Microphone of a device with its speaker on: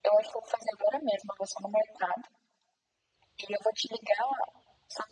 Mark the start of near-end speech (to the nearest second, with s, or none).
none